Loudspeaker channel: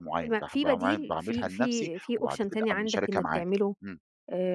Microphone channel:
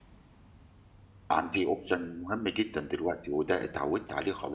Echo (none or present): none